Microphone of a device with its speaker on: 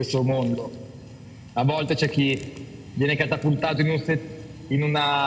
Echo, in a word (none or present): present